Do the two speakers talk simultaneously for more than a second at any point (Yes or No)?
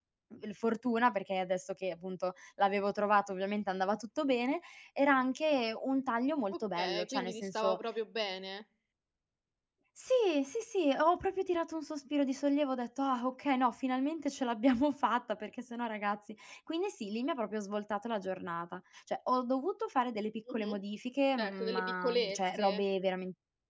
Yes